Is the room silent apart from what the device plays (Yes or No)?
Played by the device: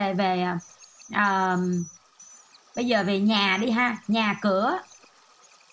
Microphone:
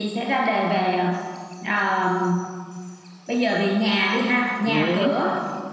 No